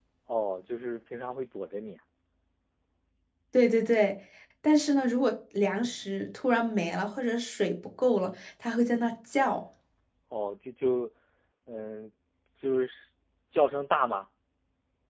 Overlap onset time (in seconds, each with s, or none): none